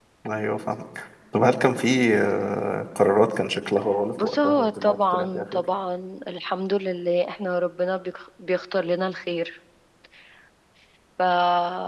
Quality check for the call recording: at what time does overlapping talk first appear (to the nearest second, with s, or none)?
4 s